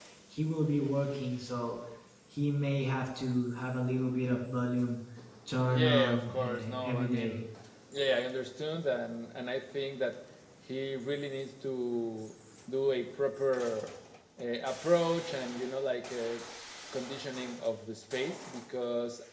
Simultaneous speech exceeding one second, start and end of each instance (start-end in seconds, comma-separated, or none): 5.7-7.4